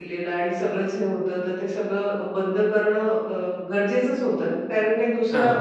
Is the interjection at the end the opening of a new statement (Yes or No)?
No